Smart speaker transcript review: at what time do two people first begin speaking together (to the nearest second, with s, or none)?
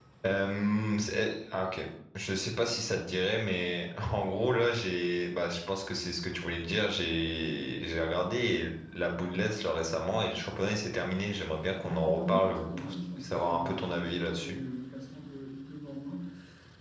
12 s